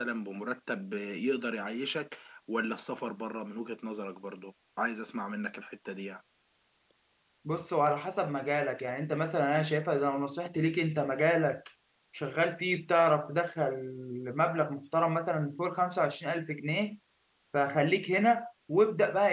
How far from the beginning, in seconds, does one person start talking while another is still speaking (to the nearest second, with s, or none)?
none